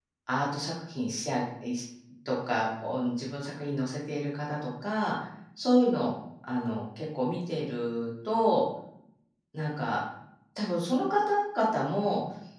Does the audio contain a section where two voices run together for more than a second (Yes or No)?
No